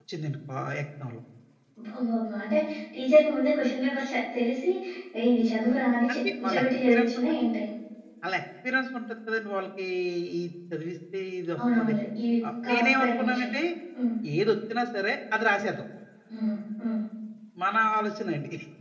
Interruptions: present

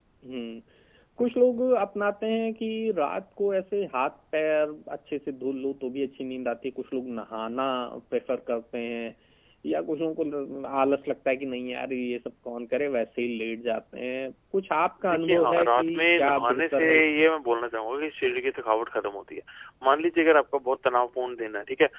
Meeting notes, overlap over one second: present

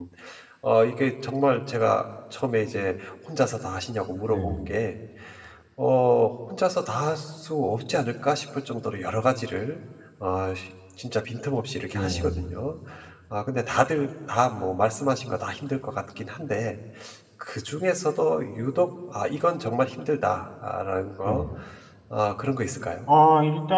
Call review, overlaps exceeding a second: none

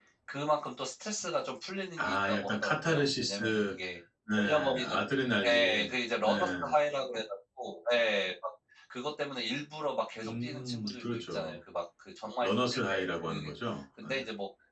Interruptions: present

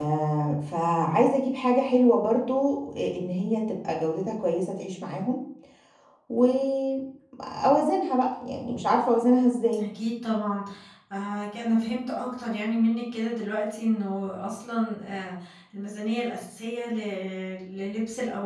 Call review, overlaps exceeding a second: none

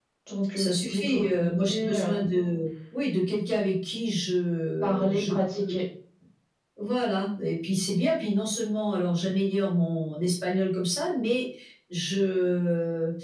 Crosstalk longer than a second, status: present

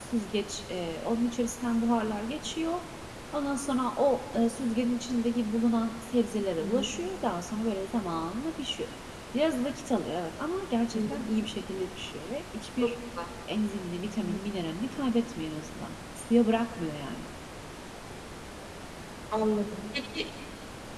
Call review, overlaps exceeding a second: none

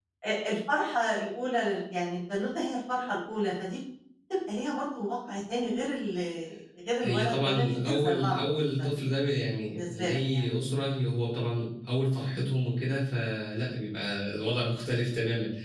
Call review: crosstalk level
present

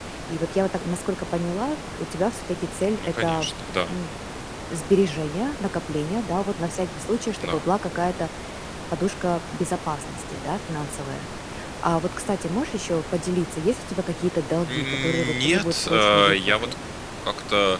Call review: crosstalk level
present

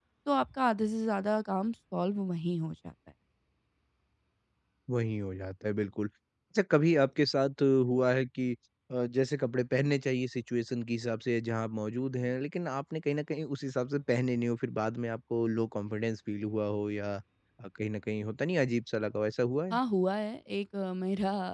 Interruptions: none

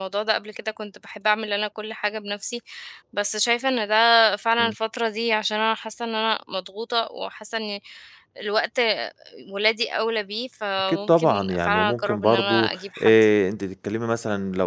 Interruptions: present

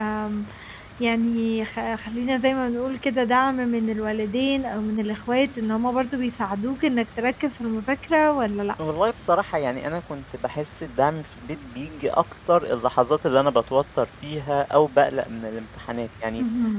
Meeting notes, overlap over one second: none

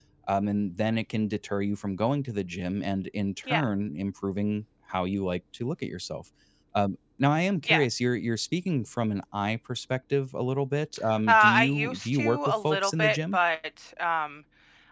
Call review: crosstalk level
present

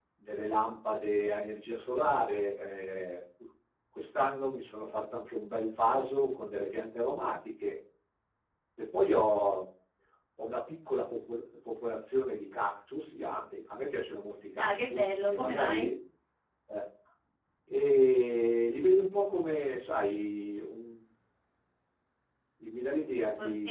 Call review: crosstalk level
present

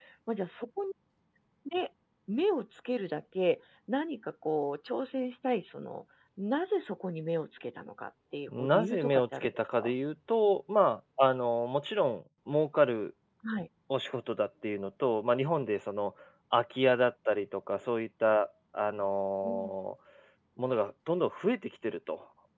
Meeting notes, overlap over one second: present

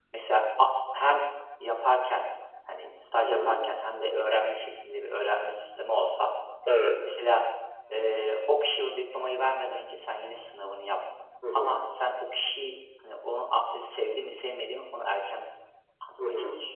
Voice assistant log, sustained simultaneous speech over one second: none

